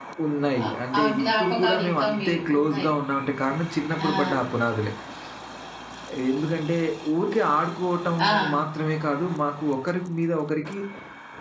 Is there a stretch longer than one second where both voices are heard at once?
Yes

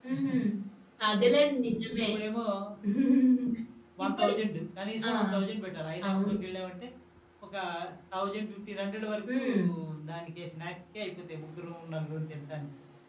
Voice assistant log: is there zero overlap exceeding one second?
Yes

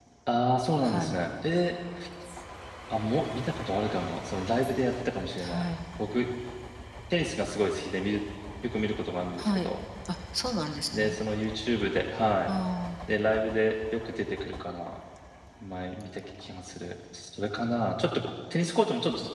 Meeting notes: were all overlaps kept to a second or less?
Yes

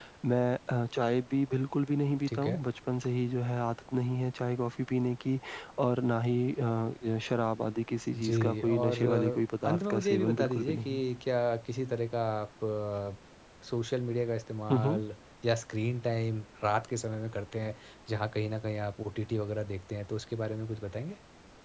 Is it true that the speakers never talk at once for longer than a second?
No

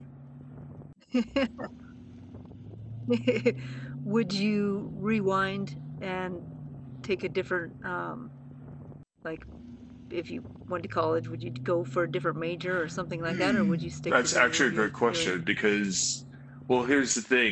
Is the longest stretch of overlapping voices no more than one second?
No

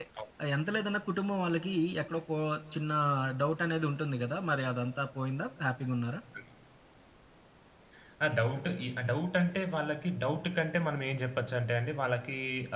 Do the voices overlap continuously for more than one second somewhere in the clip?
No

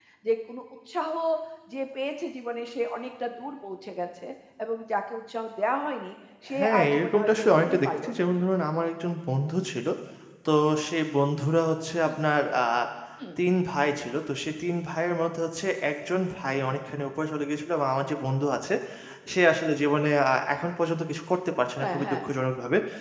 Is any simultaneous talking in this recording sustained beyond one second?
Yes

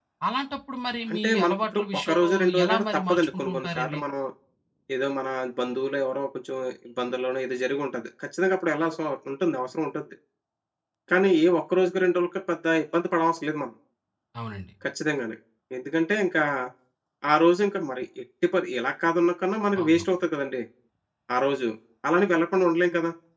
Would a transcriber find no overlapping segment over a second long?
No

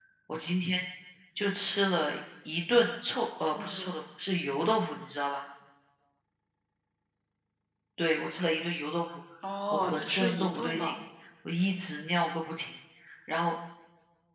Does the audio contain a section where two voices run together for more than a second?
Yes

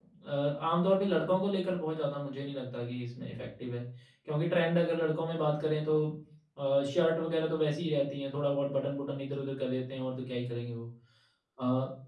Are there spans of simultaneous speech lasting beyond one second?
No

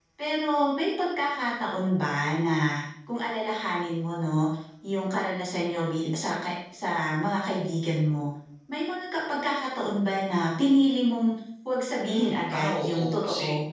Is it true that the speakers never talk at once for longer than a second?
No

